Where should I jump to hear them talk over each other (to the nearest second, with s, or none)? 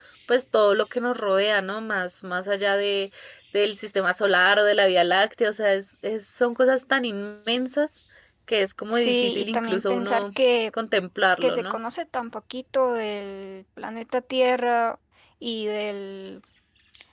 9 s